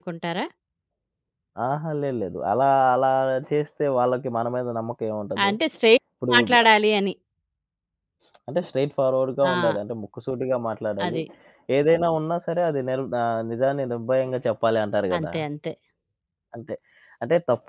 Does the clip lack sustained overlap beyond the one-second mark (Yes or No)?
Yes